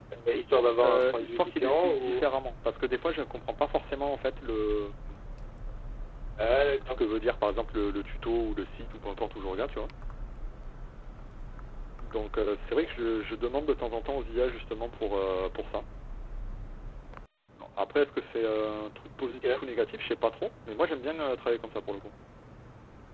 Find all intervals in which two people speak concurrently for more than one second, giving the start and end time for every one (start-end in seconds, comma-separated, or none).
0.8-2.2